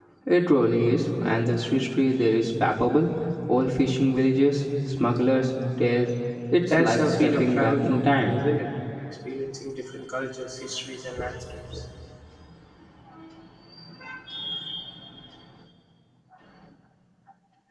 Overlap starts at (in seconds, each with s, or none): 6.7 s